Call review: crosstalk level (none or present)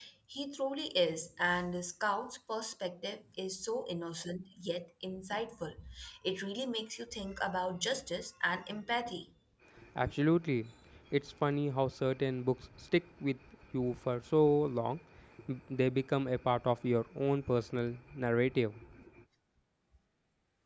none